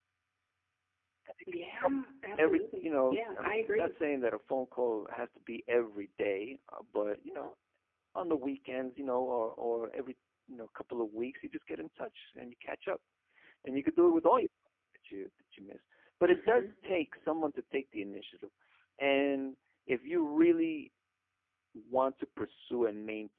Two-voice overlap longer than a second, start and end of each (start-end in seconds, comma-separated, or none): 2.4-3.9